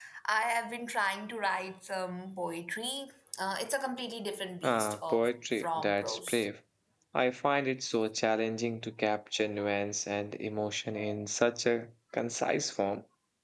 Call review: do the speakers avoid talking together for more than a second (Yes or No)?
No